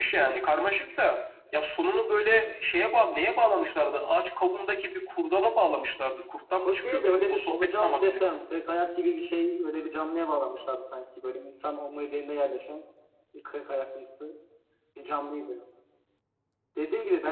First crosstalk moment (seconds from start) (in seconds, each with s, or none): 6.6 s